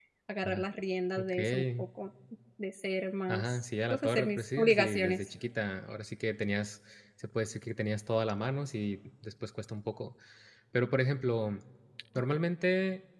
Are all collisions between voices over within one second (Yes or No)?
No